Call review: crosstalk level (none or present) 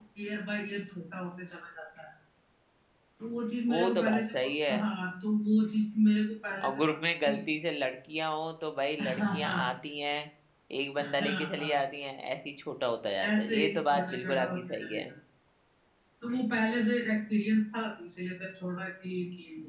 present